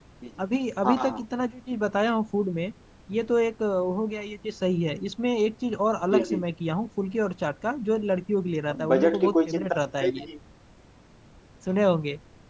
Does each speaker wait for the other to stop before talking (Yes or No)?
No